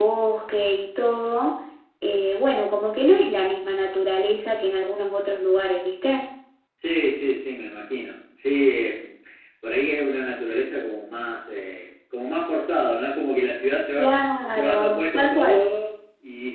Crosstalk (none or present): present